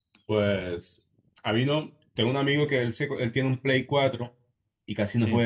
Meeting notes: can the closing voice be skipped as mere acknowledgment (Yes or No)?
Yes